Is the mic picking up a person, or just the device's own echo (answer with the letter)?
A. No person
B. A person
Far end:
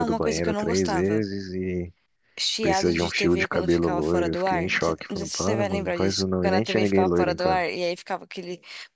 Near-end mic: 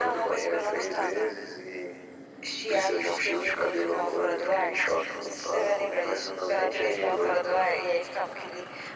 A